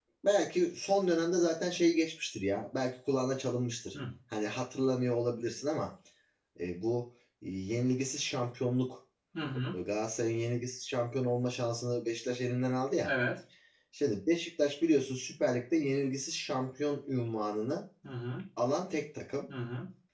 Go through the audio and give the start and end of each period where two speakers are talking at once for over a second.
none

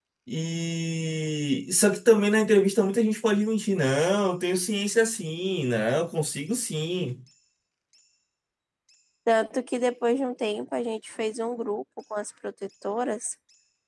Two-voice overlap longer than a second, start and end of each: none

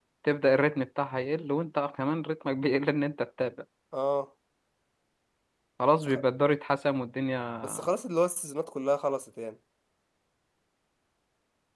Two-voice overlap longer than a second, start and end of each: none

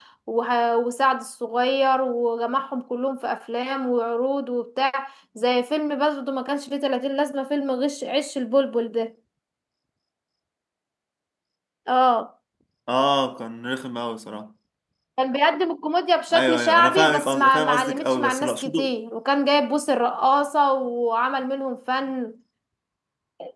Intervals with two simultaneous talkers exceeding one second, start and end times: 16.3-18.9

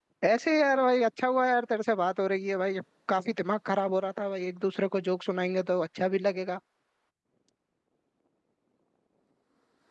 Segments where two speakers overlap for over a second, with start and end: none

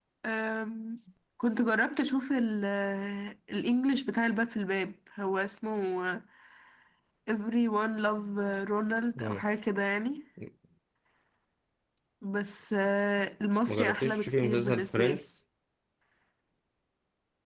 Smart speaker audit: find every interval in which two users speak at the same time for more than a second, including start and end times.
13.7-15.2

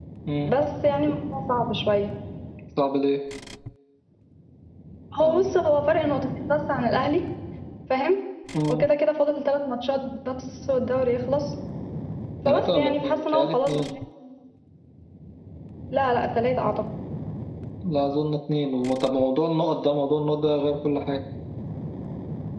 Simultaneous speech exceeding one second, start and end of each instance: 12.5-13.8

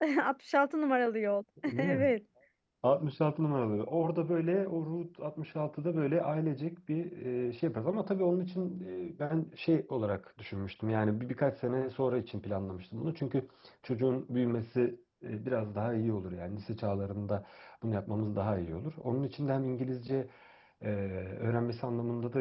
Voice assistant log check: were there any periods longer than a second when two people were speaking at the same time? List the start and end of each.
none

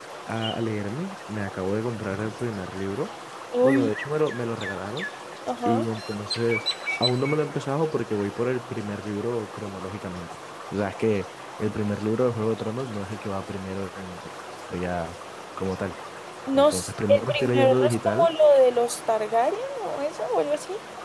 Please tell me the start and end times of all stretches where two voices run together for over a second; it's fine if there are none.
16.5-18.3

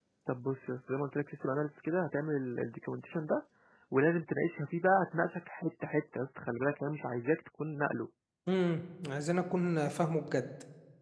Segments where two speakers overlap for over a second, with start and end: none

